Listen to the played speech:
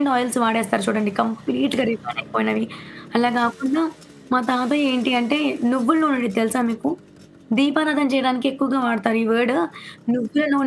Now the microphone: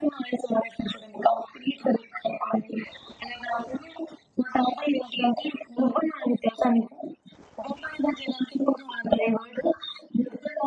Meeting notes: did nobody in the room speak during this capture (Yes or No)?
Yes